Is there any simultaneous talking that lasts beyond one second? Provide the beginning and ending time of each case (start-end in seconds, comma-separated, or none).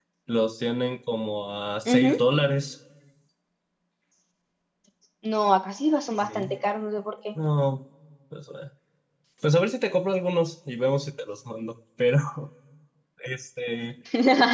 none